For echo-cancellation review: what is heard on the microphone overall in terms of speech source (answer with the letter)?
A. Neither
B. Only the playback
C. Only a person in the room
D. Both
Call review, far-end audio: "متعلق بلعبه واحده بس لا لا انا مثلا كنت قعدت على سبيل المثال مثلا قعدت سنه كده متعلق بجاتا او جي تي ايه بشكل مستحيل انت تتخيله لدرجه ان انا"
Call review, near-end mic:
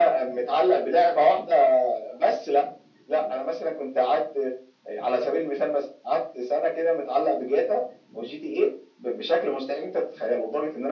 B